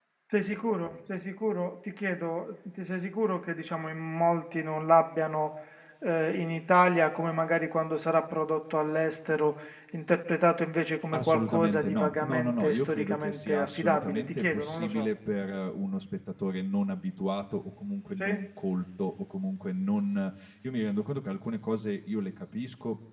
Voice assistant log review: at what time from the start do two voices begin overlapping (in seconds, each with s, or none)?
11.1 s